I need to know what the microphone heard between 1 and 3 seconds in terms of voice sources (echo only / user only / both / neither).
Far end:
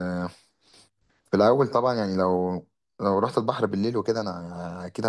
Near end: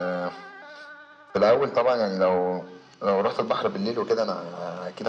echo only